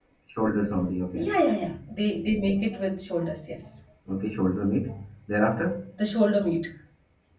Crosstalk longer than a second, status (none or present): none